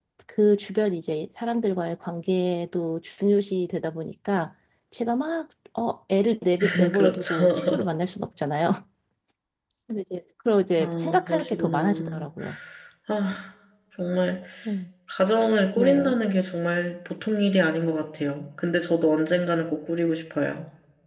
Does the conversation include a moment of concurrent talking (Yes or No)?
Yes